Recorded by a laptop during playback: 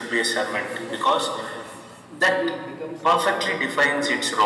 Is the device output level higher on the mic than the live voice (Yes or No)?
Yes